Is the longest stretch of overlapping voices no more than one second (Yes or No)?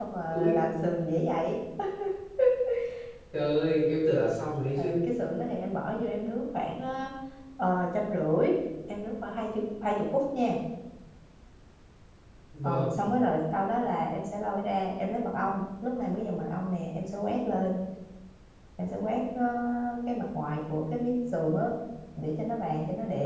Yes